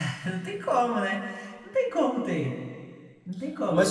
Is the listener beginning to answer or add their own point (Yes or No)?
Yes